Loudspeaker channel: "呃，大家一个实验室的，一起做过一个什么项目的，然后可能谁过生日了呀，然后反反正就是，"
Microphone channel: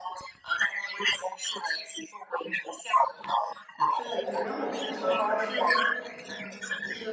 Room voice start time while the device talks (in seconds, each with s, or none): 3.9 s